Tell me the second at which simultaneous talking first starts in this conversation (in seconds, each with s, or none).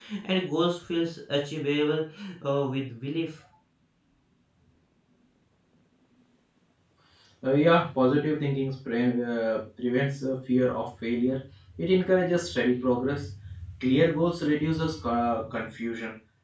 none